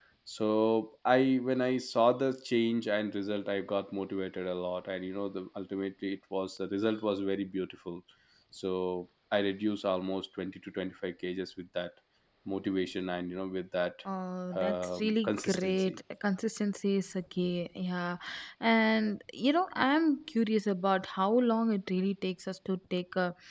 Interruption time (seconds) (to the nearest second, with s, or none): 15 s